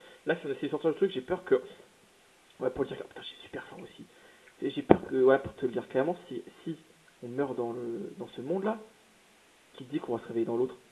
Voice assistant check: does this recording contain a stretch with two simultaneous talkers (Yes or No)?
No